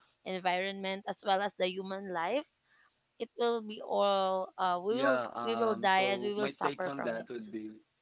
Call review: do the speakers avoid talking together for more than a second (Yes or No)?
No